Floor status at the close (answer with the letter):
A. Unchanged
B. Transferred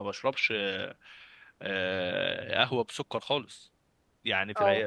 A